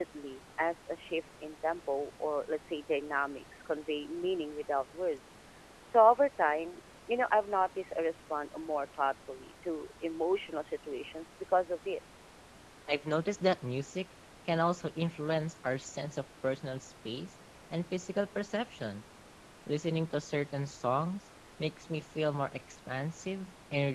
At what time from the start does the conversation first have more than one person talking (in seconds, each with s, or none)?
none